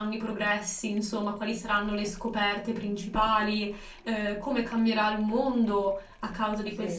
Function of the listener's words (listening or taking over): listening